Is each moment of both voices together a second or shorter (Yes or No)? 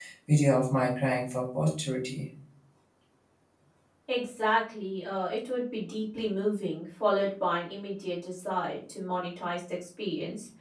Yes